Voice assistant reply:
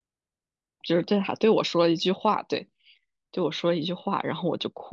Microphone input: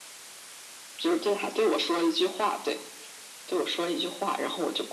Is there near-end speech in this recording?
No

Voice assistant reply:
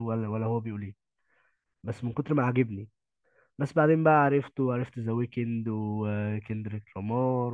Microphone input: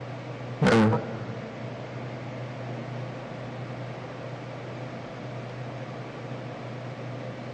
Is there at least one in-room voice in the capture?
Yes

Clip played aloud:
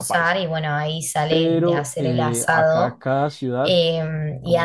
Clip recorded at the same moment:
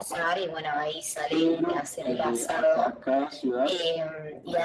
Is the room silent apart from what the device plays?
Yes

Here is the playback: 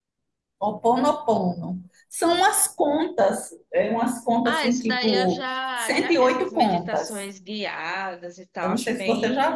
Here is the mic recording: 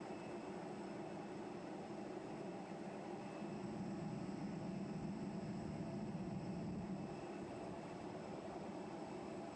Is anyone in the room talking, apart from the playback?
No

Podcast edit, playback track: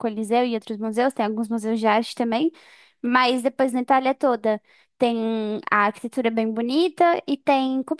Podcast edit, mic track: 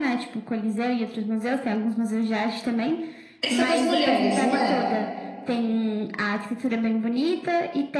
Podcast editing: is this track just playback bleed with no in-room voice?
No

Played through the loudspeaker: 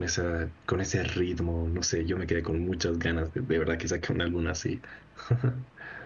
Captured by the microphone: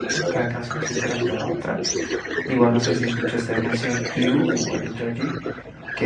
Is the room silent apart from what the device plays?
No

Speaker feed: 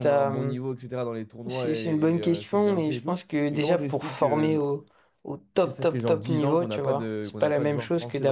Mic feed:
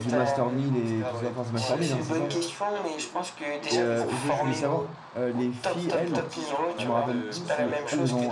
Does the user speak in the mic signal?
Yes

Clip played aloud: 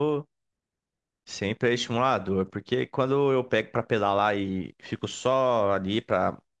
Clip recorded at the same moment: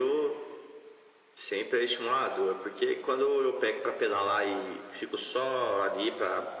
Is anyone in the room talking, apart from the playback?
No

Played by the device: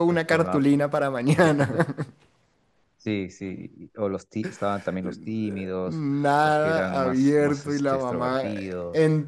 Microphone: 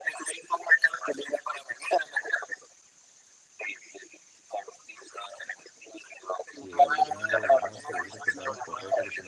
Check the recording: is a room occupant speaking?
Yes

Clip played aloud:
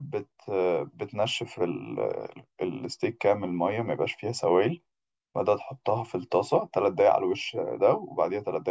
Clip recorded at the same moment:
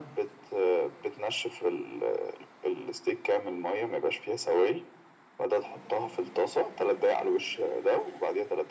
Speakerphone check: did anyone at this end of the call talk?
No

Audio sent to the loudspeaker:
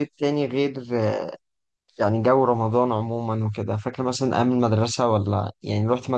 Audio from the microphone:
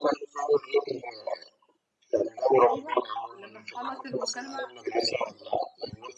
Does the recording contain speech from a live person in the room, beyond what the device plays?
Yes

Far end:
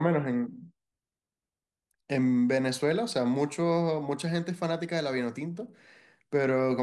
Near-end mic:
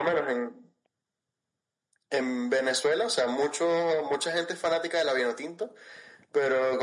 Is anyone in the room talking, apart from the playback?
No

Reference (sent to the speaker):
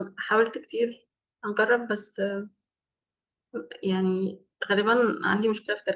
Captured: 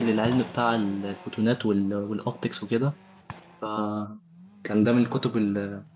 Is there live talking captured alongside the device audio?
Yes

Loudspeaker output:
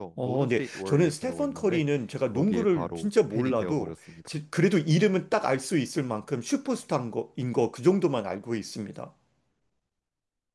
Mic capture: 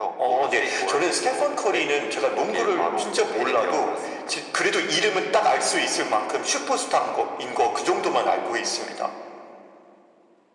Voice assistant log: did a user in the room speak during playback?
No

